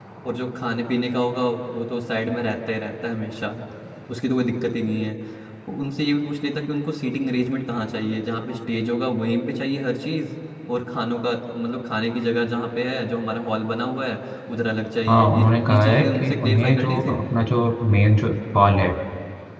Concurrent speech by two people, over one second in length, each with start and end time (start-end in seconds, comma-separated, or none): 15.1-17.1